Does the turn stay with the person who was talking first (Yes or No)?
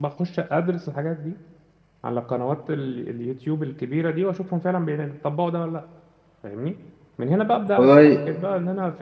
Yes